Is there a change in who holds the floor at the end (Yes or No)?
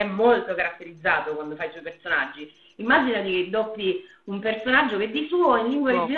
No